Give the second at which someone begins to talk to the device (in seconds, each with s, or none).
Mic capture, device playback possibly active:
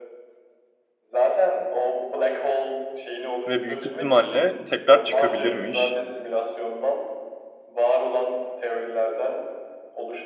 3.5 s